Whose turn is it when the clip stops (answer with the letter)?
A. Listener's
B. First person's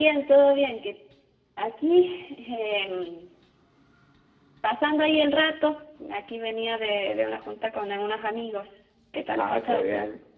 A